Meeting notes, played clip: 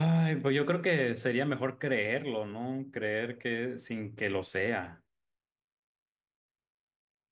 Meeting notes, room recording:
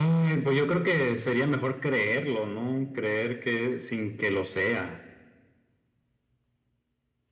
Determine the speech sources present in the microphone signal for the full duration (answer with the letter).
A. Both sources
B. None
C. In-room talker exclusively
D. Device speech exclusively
D